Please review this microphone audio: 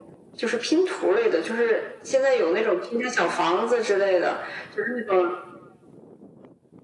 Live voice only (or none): none